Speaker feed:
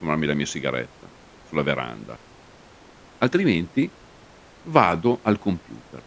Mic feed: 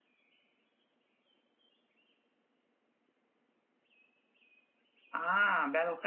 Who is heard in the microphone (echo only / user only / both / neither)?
user only